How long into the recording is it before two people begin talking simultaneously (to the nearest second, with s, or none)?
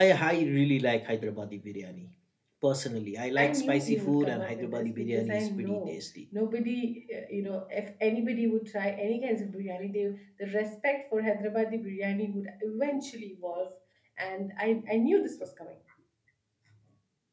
3 s